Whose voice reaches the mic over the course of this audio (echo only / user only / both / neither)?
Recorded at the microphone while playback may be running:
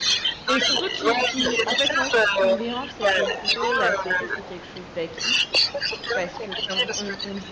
both